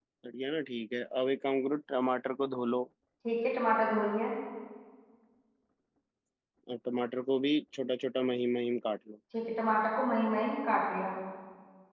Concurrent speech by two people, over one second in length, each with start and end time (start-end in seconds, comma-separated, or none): none